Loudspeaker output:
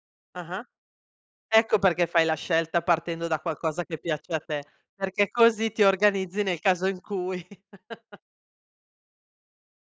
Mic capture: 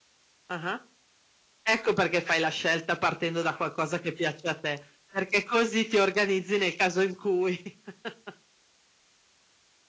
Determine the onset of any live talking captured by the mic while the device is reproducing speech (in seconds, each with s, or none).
none